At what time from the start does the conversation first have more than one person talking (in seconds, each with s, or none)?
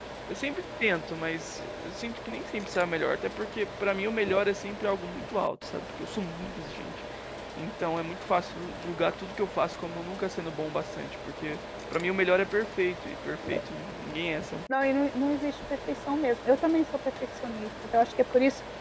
none